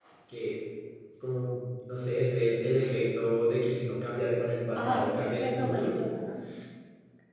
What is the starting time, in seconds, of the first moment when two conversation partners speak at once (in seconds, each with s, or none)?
4.8 s